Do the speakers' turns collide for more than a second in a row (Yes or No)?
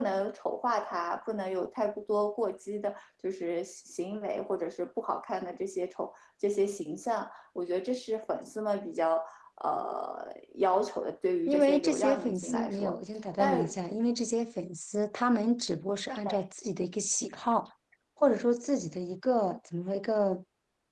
Yes